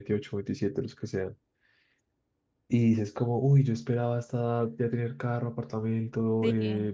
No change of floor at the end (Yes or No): Yes